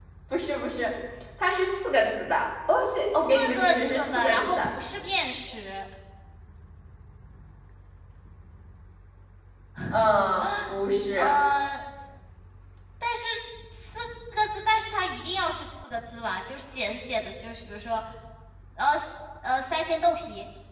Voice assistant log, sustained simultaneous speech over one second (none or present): present